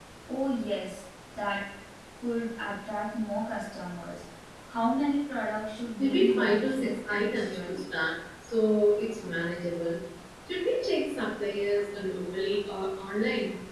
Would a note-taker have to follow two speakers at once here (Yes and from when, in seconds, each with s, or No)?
Yes, from 6.0 s